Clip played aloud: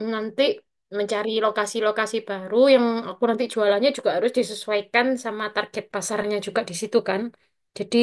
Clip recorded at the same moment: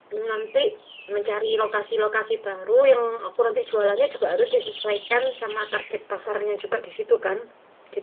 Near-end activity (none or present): none